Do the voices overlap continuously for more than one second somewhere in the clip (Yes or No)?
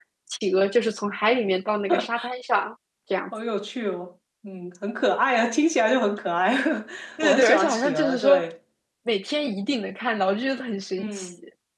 Yes